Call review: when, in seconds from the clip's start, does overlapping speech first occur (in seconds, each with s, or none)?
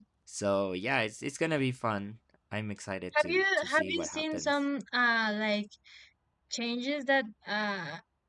3.1 s